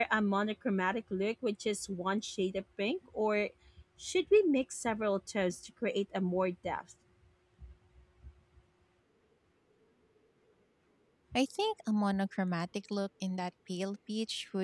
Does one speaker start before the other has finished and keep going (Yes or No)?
No